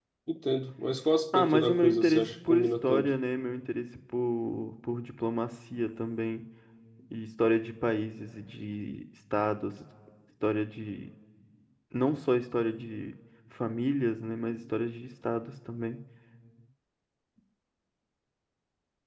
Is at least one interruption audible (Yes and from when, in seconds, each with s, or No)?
Yes, from 1.3 s